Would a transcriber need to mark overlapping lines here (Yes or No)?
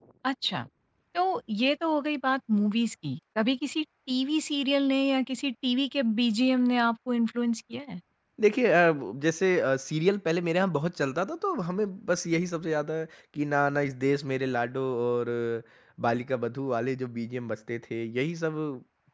No